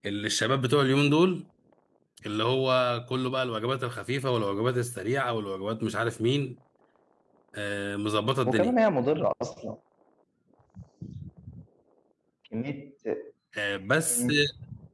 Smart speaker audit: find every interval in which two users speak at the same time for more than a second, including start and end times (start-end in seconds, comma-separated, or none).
none